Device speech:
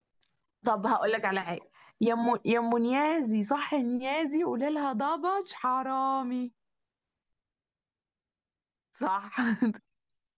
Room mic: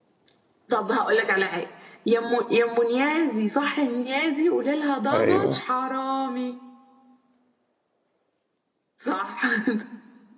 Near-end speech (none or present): present